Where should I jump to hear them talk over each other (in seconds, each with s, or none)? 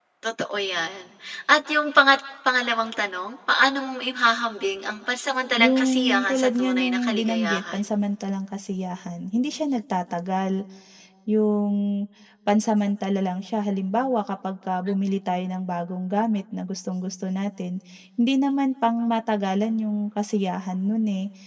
5.6 s